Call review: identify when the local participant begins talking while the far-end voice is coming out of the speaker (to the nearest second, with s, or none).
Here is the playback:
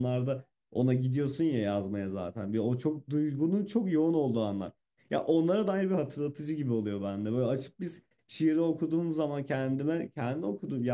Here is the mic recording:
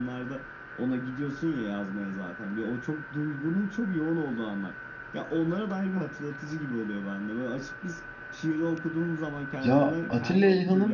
10 s